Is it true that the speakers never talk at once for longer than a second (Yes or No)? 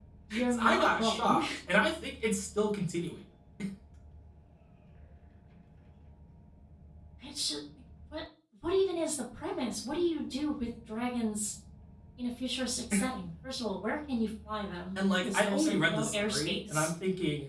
No